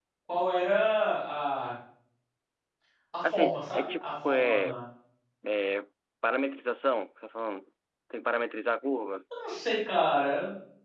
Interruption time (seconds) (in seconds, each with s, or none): 3.3 s